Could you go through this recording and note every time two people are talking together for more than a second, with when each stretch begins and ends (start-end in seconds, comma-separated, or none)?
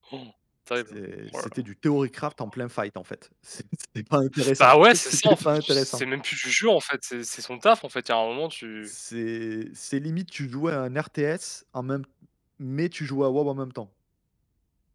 4.6-6.0